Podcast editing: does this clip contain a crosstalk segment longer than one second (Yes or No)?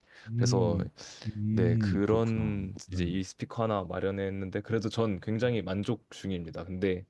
Yes